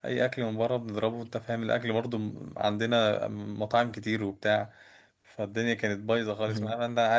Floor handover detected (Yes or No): No